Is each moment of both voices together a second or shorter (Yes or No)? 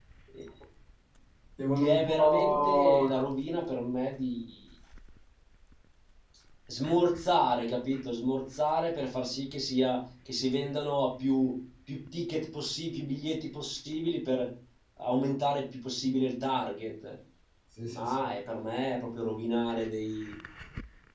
No